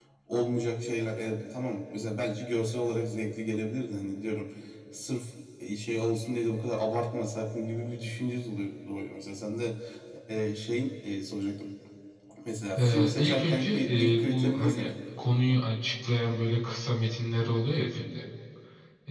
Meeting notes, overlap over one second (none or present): present